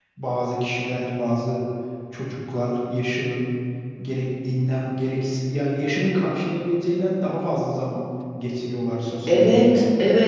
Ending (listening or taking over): taking over